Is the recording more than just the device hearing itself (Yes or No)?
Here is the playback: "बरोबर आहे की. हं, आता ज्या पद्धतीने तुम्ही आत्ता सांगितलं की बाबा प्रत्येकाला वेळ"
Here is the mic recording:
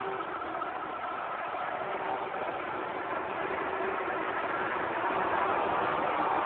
No